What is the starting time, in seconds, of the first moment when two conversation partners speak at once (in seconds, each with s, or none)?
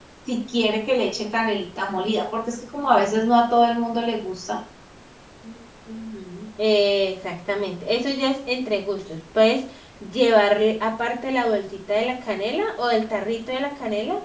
none